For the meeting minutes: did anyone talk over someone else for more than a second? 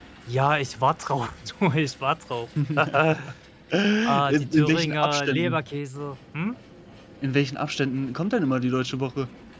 Yes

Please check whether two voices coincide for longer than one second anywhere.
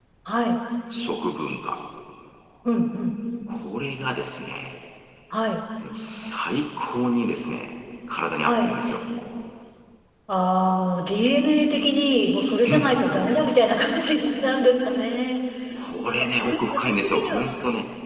Yes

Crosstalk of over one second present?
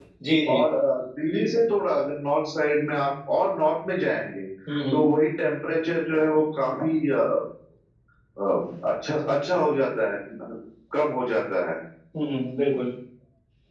No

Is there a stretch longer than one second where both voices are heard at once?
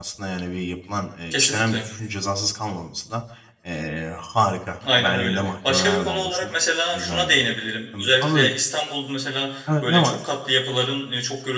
Yes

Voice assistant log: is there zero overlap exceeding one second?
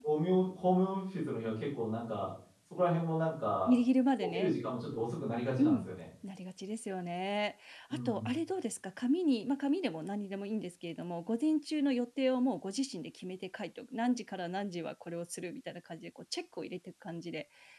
Yes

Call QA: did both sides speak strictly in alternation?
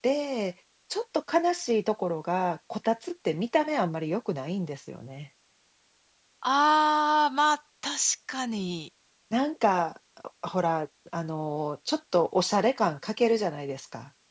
Yes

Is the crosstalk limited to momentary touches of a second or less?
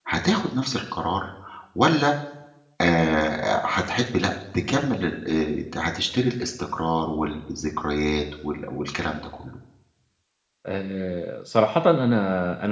Yes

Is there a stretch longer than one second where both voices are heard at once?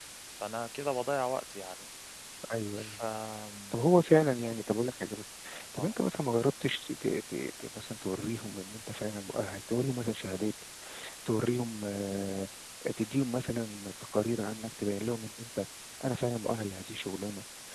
No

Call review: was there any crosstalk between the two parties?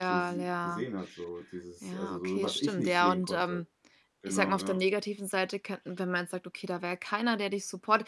Yes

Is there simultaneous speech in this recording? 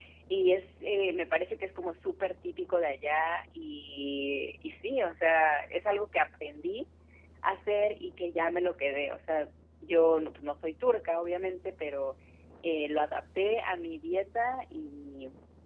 No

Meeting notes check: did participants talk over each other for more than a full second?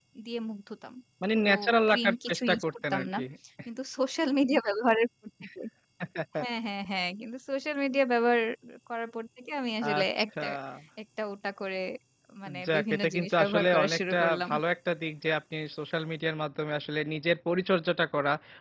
Yes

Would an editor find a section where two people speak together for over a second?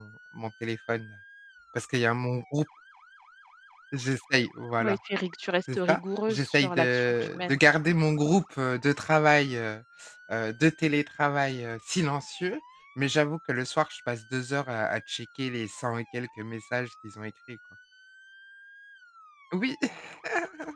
Yes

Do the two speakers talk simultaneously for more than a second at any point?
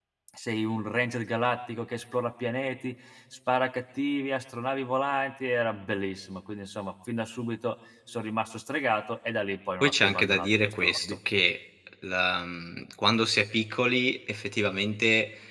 Yes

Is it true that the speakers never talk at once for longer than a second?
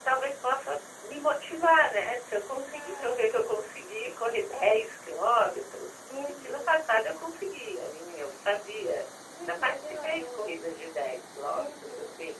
No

